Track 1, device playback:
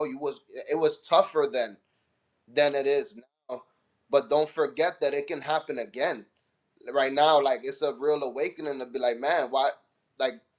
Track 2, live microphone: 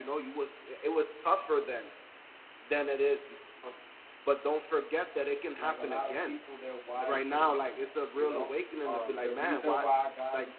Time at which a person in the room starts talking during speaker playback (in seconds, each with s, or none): 5.6 s